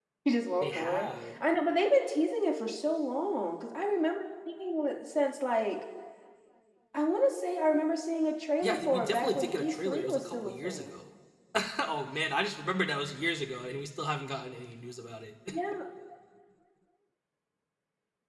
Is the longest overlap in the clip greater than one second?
Yes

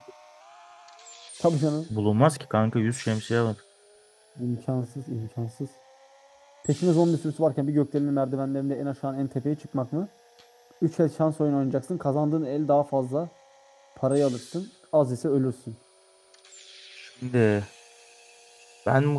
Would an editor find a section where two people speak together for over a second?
No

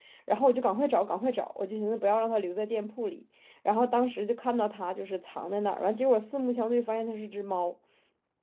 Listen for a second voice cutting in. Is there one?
No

